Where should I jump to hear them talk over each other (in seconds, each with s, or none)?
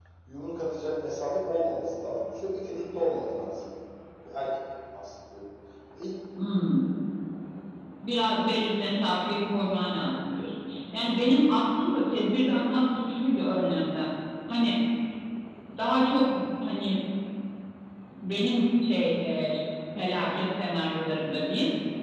none